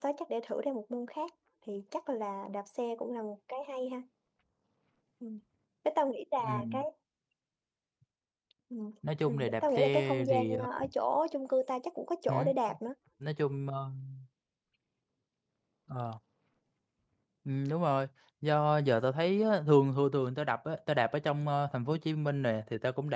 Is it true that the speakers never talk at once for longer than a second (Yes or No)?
No